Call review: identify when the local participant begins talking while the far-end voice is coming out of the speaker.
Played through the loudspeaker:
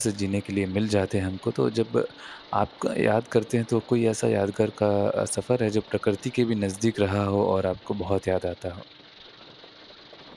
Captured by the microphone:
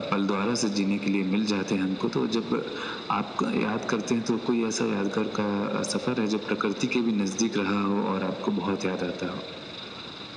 none

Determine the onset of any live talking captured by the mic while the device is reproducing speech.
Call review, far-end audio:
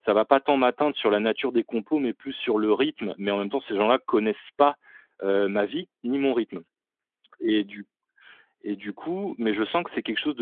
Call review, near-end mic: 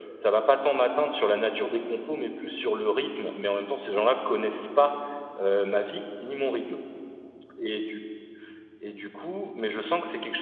none

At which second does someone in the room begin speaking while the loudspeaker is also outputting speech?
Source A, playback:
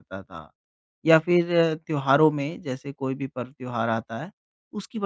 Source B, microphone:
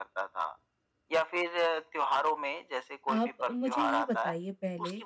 3.1 s

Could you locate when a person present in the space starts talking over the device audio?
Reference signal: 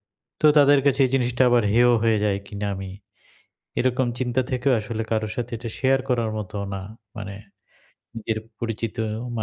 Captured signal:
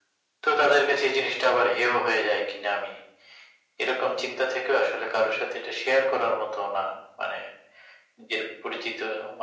none

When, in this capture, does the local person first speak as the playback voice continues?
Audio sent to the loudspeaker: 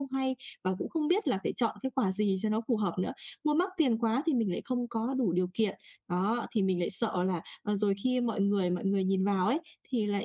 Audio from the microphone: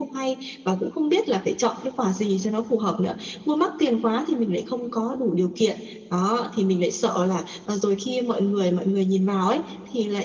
none

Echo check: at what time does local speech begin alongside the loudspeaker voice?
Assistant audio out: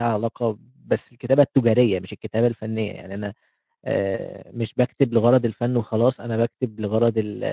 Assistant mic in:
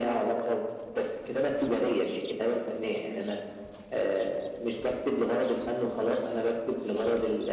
none

